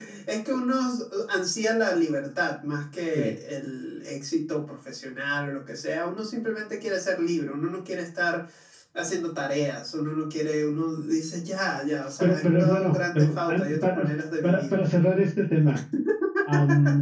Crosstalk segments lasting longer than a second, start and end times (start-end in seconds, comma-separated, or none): 12.2-14.0